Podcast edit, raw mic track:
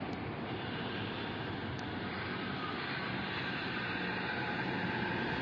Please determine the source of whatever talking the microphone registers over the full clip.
neither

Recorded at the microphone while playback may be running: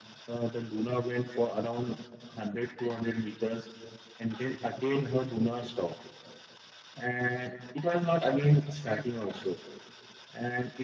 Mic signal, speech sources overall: echo only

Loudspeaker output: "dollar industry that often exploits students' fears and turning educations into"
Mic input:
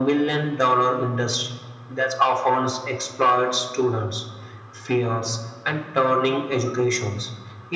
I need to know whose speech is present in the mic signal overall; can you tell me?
echo only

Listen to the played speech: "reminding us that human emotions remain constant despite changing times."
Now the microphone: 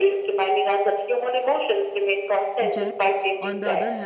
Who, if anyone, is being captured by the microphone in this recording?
both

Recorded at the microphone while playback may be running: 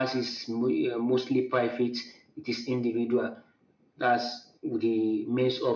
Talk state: echo only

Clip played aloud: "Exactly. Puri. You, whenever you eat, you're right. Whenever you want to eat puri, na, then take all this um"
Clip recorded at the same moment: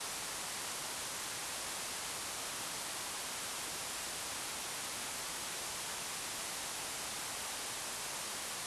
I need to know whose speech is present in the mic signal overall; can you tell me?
neither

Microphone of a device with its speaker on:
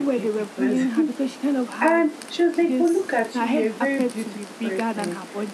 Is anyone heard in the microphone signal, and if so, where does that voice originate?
both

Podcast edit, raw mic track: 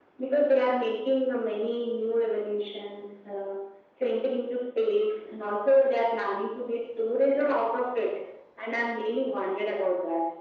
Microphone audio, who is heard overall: echo only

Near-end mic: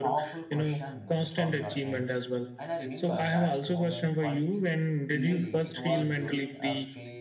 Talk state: both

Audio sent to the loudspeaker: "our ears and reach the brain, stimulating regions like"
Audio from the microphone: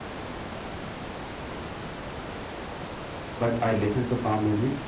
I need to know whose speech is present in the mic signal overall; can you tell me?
user only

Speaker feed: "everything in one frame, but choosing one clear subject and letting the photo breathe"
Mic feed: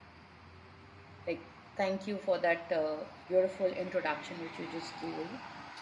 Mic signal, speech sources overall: user only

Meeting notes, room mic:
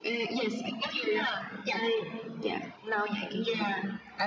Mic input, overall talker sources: echo only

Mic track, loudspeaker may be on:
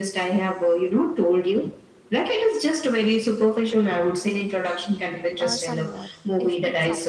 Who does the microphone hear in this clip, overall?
both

